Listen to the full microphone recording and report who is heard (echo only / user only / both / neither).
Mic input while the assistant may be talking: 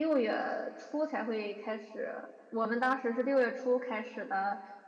user only